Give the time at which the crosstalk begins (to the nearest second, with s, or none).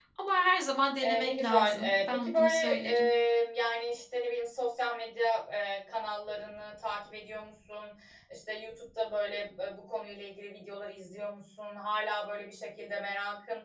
1 s